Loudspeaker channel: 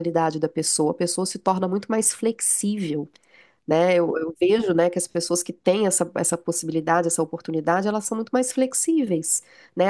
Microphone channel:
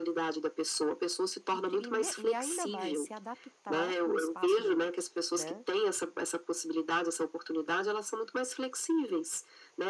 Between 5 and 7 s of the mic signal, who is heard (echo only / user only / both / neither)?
both